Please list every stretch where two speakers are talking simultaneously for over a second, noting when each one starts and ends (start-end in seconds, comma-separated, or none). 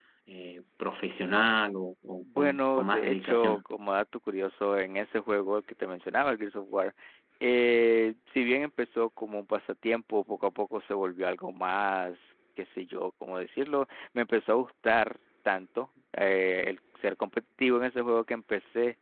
2.4-3.6